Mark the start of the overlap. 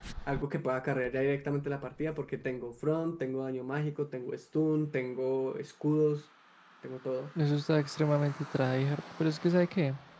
none

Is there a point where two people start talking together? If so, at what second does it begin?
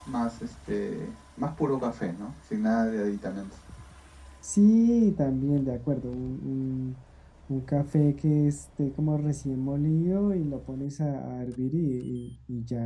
none

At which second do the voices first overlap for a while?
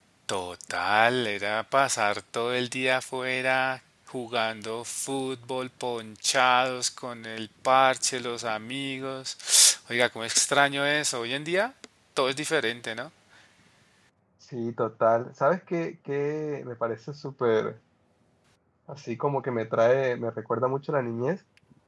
none

